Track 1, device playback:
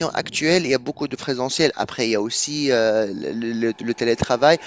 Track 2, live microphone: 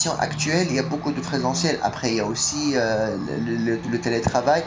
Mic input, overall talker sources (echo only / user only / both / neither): echo only